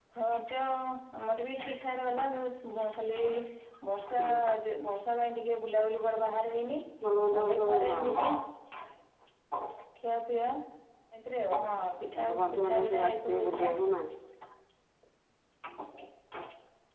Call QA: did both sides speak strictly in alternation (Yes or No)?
No